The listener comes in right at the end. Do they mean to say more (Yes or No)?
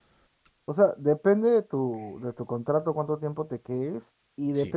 No